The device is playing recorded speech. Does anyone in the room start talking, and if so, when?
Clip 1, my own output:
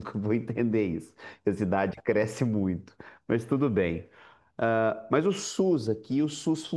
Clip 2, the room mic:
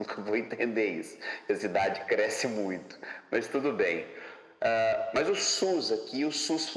none

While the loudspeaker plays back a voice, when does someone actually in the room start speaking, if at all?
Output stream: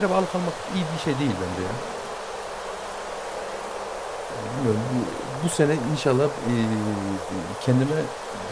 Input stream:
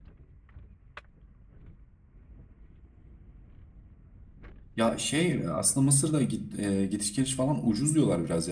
4.8 s

